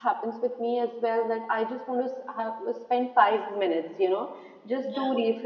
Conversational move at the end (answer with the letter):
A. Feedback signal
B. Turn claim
A